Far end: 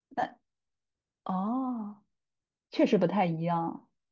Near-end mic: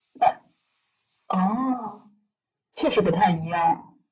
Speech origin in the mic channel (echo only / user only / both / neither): echo only